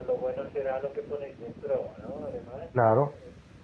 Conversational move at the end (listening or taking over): taking over